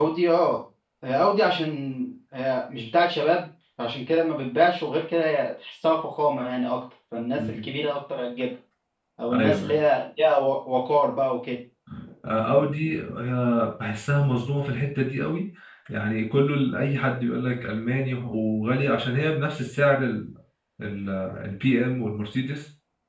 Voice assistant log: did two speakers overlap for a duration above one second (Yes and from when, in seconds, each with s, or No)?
No